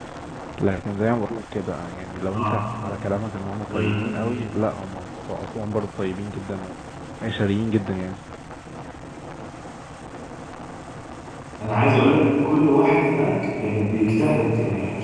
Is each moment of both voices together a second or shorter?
Yes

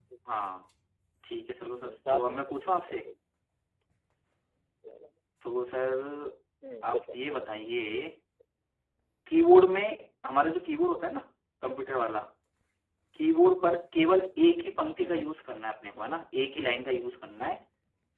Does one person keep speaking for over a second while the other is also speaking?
Yes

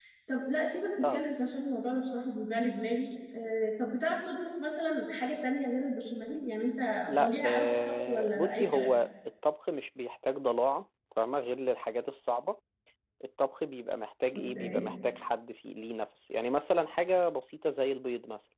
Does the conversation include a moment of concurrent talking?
Yes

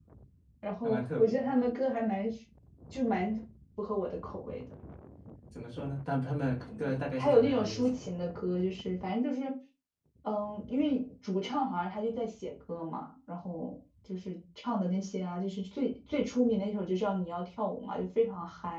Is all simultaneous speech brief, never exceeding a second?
No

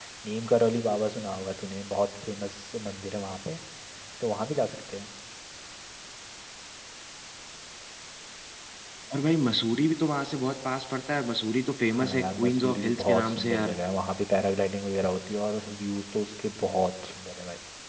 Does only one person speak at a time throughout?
No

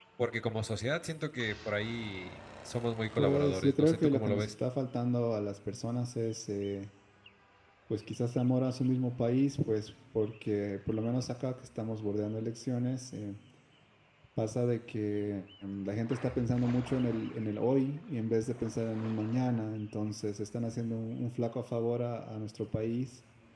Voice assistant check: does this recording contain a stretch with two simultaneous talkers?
Yes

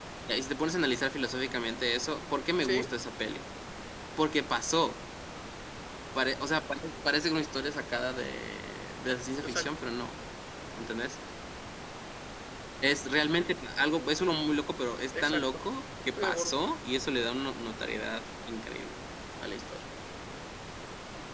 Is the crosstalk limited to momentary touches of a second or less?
Yes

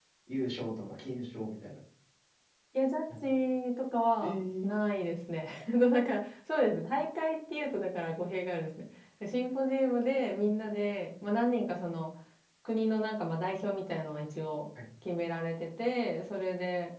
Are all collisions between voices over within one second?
Yes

